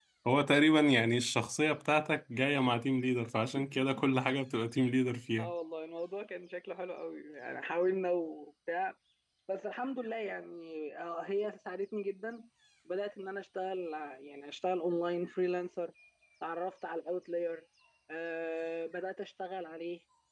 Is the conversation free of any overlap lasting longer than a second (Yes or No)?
Yes